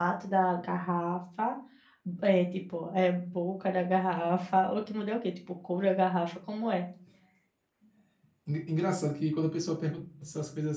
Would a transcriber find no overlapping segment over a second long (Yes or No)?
Yes